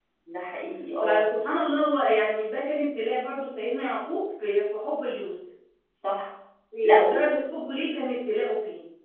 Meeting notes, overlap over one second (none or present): none